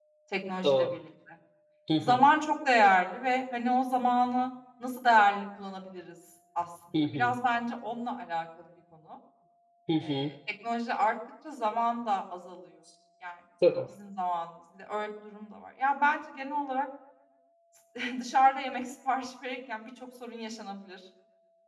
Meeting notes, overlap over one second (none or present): none